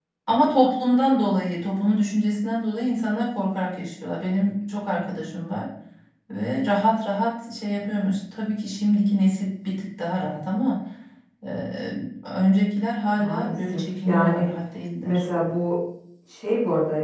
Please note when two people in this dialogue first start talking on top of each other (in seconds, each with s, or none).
13.2 s